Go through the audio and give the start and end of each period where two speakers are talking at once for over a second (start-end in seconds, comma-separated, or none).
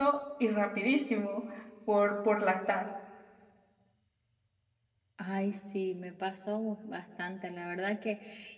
none